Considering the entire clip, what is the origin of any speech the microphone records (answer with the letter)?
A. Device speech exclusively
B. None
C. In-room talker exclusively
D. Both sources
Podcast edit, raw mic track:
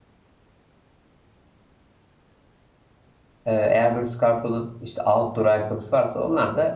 C